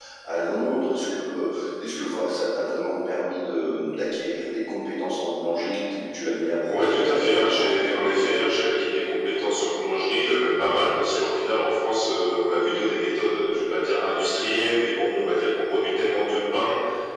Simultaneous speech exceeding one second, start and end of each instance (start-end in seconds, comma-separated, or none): 6.7-8.2